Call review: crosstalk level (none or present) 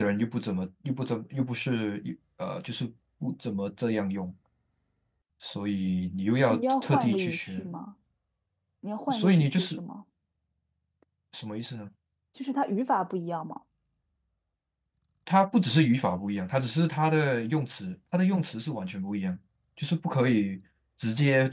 present